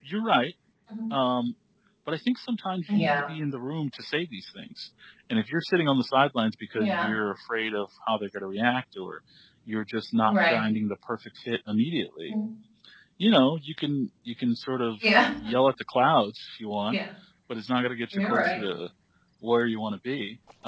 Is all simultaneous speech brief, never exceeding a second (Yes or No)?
Yes